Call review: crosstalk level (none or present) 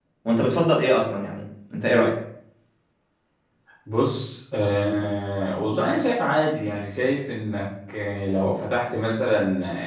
none